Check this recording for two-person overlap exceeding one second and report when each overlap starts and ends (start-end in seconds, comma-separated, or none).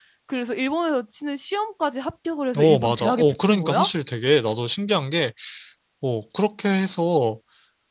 2.6-3.9